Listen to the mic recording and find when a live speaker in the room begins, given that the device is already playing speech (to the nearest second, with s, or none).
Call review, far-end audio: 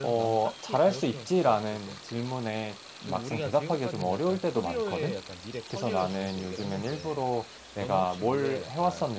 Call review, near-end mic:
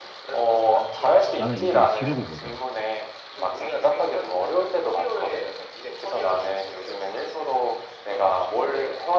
1 s